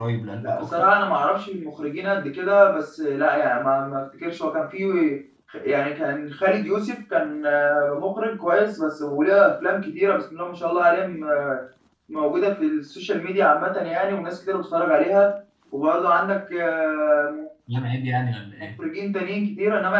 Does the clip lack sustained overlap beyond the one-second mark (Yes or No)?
Yes